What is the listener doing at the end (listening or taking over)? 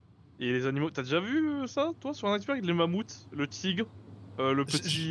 listening